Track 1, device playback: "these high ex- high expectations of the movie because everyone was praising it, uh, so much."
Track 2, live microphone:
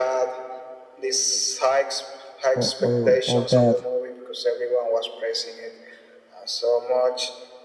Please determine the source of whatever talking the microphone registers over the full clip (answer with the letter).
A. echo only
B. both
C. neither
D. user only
B